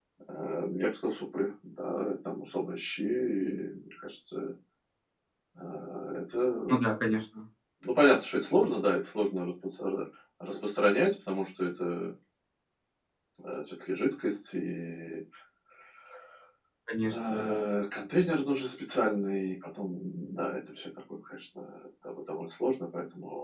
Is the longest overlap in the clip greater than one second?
No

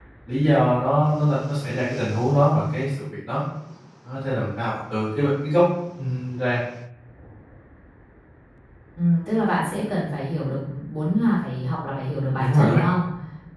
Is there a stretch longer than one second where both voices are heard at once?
No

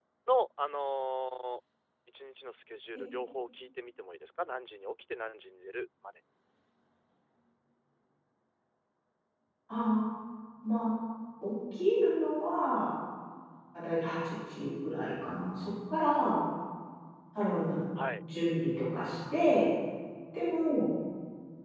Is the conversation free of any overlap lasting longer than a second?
Yes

